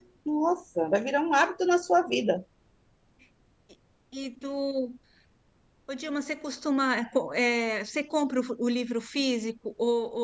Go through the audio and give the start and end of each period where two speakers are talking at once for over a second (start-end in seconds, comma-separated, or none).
none